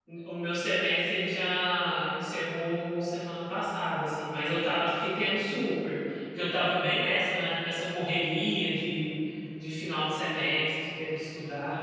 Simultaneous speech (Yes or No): No